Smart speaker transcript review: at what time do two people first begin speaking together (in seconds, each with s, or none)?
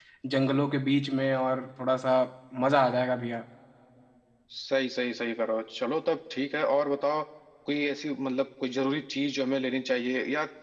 none